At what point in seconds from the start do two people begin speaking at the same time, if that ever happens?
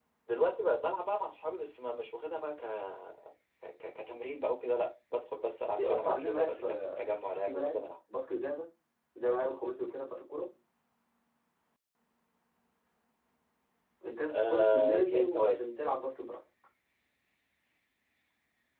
6 s

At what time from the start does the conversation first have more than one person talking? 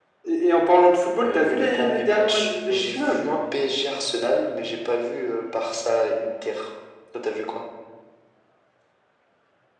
1 s

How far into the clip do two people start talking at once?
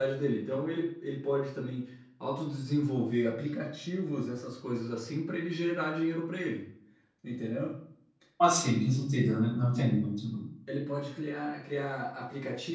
none

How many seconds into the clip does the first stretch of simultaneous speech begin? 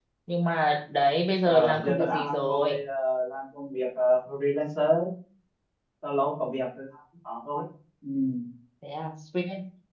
1 s

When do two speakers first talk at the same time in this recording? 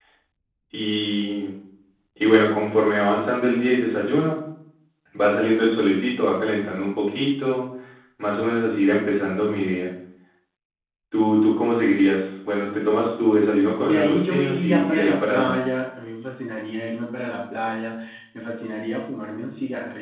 14 s

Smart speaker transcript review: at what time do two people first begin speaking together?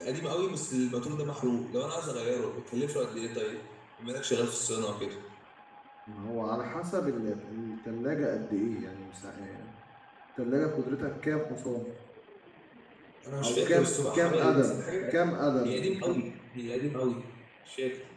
13 s

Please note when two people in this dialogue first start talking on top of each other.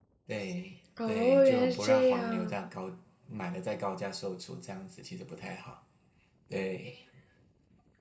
1 s

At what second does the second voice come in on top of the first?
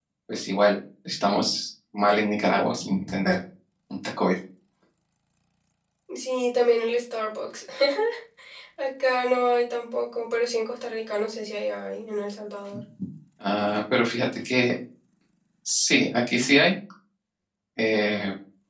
none

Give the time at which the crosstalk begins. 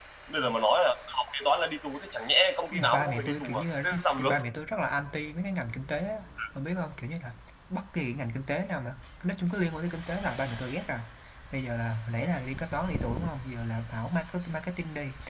3 s

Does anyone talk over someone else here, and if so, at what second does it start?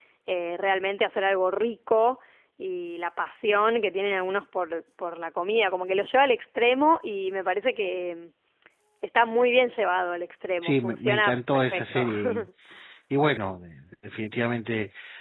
11 s

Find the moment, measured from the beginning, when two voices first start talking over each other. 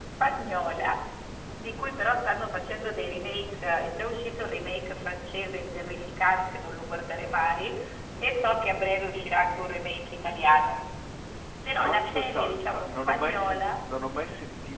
12 s

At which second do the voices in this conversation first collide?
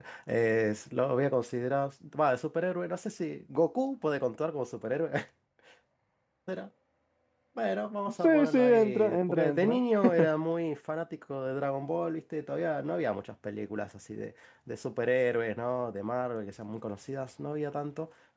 8 s

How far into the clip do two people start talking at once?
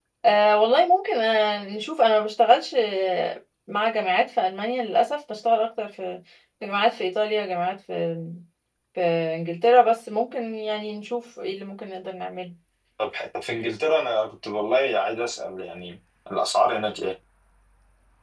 none

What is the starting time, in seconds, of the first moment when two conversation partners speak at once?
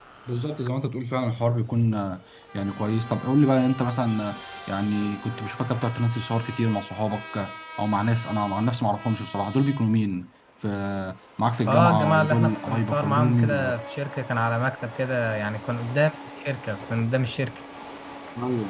12 s

